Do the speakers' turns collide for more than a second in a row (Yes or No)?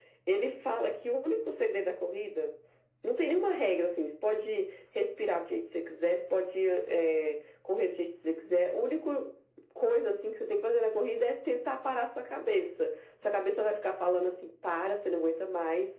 No